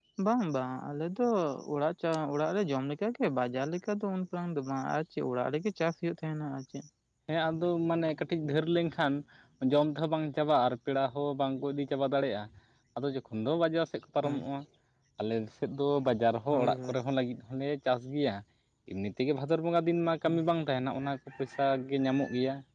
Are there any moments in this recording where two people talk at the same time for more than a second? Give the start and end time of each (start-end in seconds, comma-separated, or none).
none